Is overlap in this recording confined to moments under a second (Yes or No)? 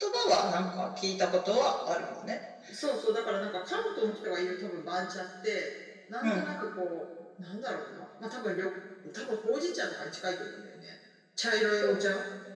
Yes